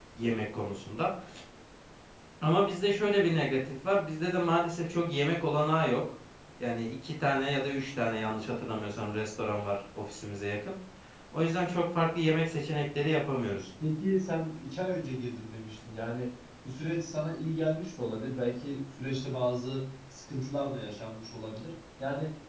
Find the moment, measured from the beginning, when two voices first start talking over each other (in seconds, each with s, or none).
none